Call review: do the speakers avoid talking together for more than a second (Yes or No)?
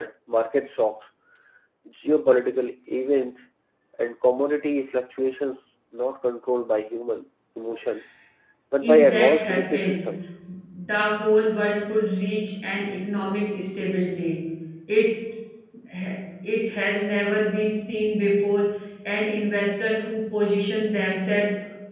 No